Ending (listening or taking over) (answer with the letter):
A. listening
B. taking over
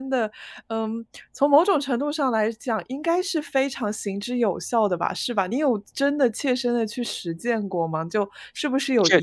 A